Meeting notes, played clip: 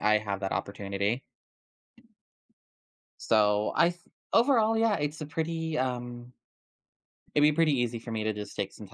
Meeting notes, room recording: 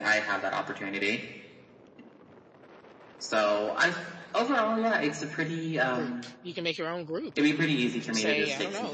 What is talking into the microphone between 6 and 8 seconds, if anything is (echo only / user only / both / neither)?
both